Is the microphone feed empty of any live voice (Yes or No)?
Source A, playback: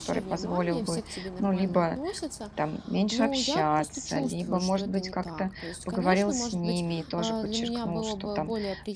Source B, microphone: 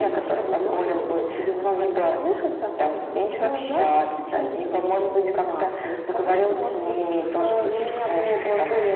Yes